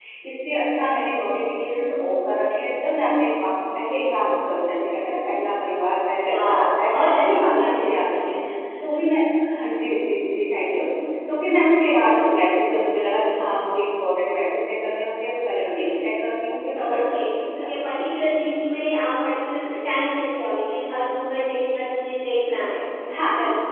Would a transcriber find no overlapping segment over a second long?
No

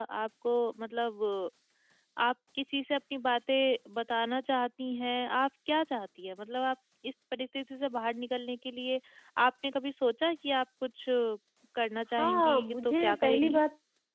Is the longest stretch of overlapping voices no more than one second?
No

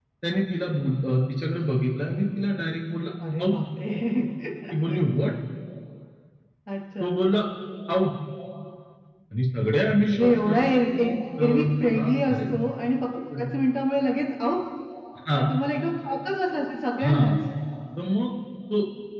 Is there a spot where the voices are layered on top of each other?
Yes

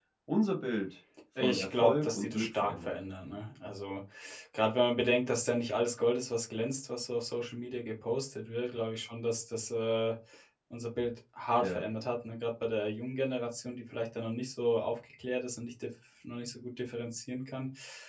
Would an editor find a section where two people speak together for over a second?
Yes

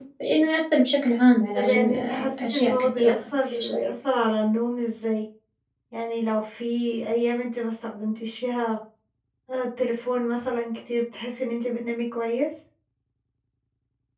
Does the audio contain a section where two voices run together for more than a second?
Yes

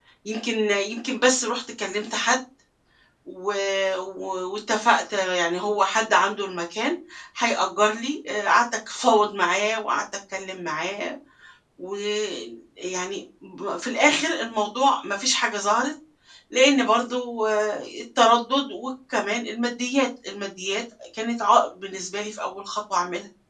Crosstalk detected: No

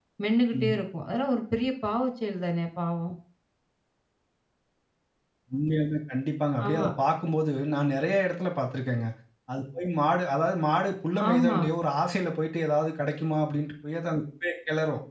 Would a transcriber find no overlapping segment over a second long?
Yes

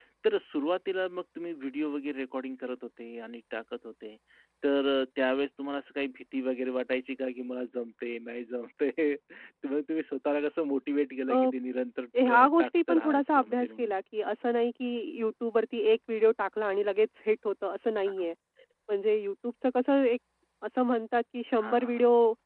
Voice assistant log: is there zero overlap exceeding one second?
No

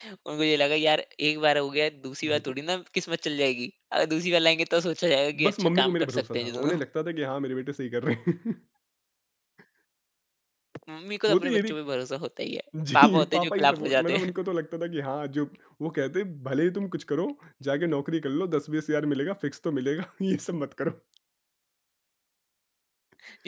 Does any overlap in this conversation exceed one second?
Yes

